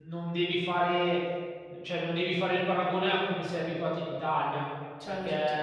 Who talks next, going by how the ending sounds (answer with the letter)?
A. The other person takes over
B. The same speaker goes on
B